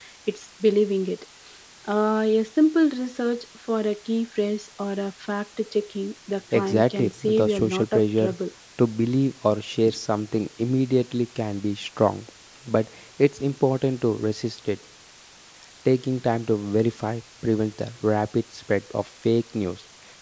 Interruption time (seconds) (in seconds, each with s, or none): 6.5 s